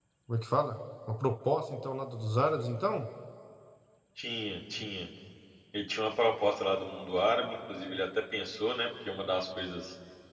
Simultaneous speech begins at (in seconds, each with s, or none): none